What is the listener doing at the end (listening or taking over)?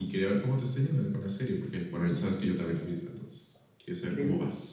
taking over